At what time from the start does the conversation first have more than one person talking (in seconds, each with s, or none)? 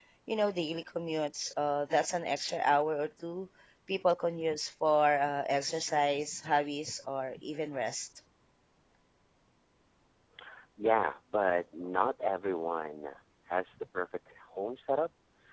none